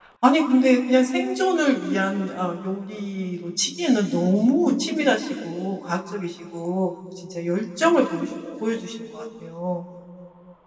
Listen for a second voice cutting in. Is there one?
No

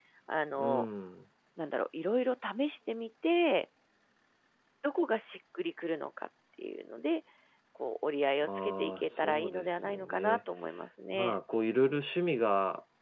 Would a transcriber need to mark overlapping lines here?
Yes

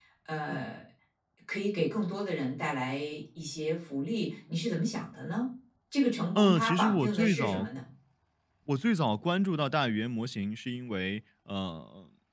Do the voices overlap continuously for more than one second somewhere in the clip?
Yes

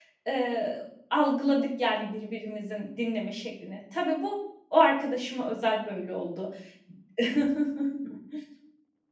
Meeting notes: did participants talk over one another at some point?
No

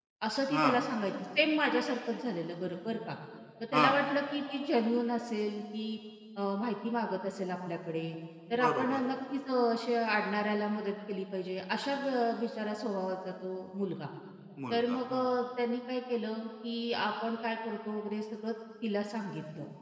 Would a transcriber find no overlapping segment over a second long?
Yes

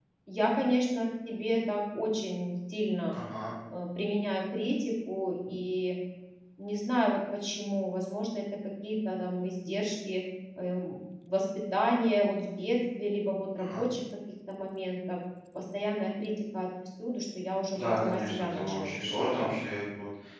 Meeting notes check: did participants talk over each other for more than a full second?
Yes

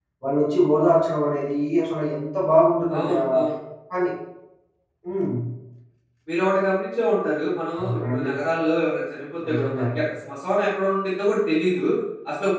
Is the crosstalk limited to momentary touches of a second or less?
Yes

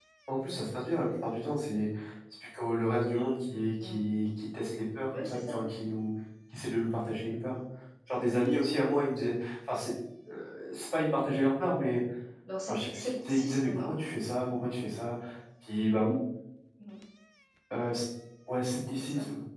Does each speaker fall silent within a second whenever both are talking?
No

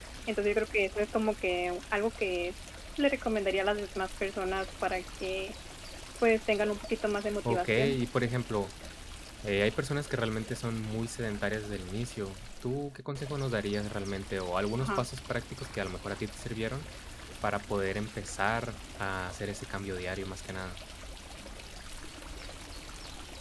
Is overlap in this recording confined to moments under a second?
Yes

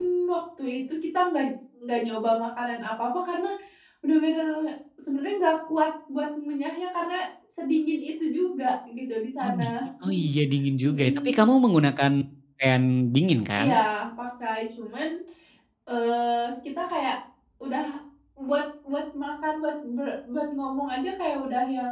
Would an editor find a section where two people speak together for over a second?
No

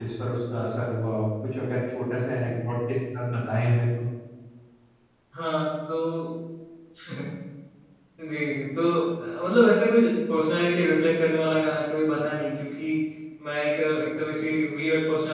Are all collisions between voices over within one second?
Yes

